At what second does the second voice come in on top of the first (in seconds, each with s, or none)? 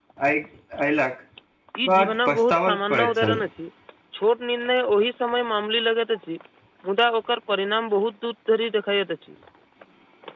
1.9 s